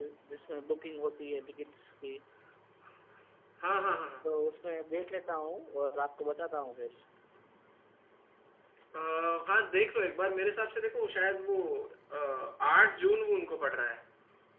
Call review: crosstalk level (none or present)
none